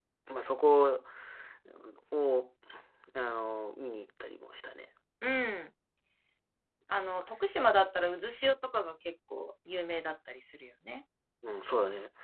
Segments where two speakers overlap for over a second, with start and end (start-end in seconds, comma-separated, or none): none